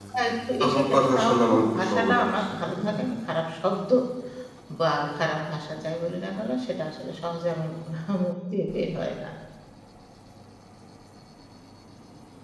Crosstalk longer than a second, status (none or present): present